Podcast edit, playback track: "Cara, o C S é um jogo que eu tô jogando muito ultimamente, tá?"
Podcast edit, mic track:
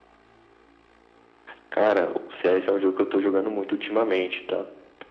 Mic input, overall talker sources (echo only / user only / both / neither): echo only